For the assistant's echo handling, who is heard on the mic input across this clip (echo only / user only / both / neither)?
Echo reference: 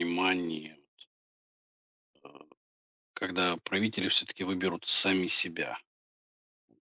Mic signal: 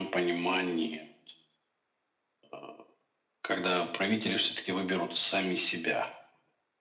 echo only